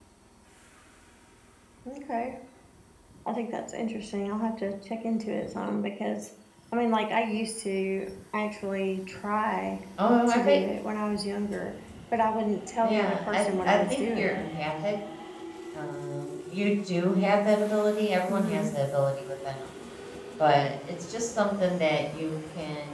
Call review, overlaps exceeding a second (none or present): present